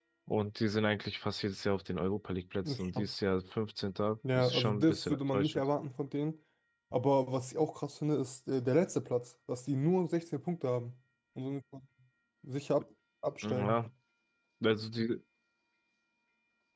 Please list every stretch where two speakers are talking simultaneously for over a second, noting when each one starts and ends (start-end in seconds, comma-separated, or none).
4.4-5.6